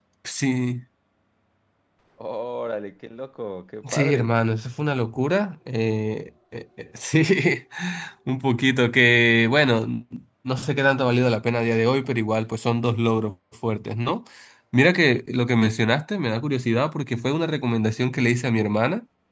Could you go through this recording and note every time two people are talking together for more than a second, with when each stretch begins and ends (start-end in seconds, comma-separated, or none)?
none